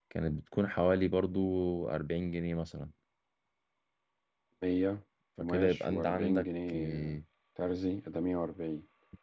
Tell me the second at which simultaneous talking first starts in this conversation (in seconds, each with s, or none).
5.4 s